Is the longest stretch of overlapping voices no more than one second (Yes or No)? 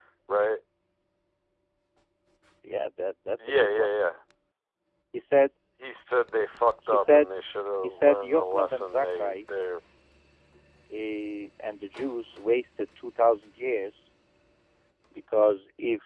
No